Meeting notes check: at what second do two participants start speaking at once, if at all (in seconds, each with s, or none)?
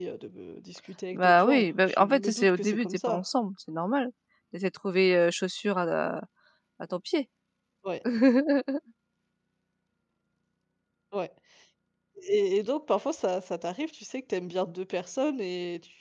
1.1 s